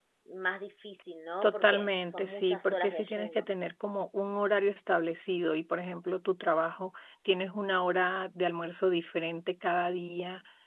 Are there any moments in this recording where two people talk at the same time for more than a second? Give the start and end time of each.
1.4-3.4

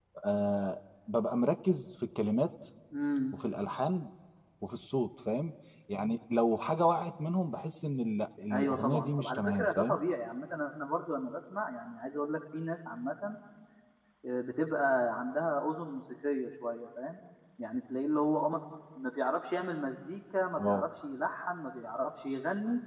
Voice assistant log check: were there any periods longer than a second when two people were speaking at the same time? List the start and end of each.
8.5-10.0

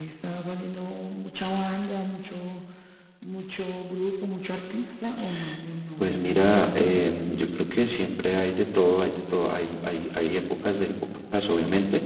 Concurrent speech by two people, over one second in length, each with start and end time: 6.0-7.2

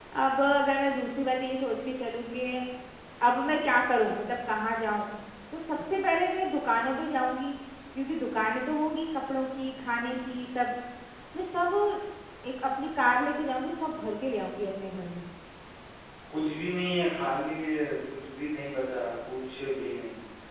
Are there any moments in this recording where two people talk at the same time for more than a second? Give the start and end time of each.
none

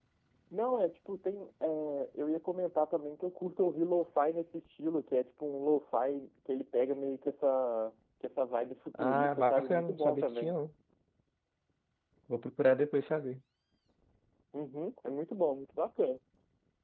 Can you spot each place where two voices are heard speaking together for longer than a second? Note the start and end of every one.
9.0-10.6

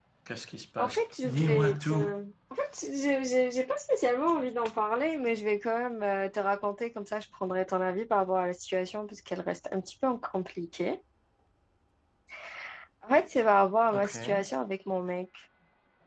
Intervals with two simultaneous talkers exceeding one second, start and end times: 0.8-2.2

